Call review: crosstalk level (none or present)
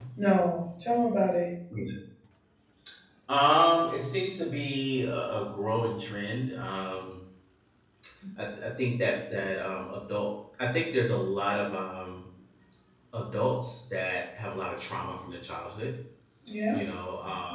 none